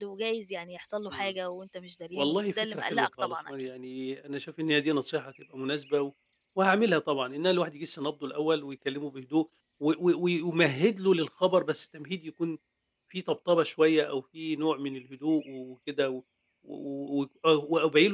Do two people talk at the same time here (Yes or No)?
Yes